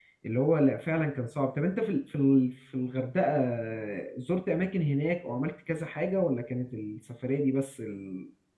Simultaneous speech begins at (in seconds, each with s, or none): none